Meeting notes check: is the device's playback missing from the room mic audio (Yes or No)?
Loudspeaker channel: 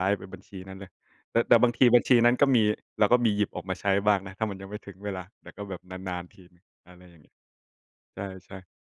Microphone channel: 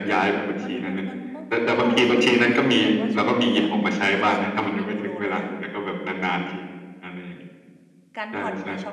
No